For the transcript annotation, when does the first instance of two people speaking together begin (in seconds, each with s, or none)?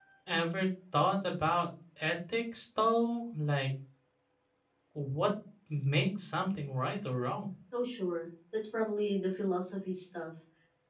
none